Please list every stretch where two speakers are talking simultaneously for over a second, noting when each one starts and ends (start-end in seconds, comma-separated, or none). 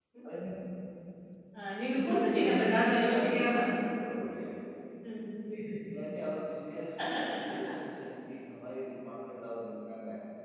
2.0-3.5